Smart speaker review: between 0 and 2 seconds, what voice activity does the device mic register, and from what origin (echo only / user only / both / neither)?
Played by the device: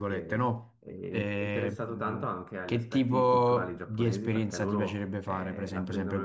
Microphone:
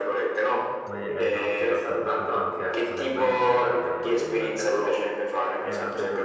both